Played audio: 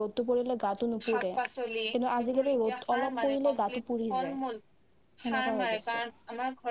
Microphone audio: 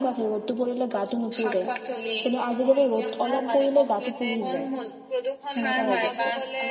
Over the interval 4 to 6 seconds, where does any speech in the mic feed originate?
both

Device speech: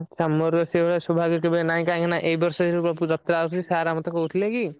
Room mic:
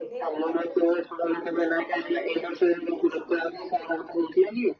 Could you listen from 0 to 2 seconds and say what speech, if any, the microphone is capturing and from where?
both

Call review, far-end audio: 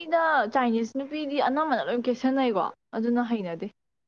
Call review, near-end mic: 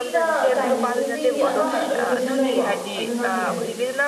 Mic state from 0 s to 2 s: both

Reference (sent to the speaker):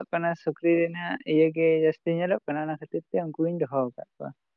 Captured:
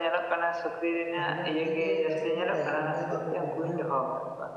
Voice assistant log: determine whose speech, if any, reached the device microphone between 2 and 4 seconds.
both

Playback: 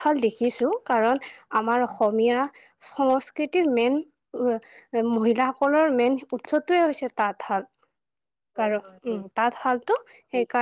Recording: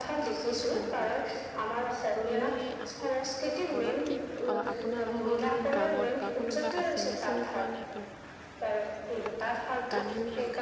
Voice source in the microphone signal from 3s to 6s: both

